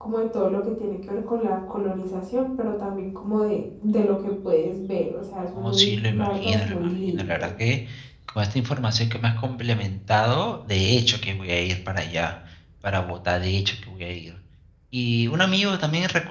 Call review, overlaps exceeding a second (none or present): present